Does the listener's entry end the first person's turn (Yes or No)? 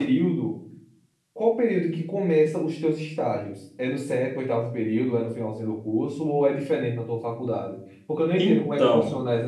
No